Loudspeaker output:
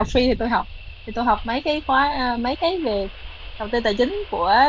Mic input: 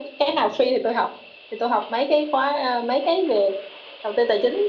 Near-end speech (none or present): none